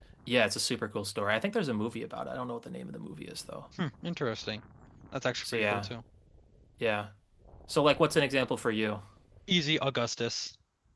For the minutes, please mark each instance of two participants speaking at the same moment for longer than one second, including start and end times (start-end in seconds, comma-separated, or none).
none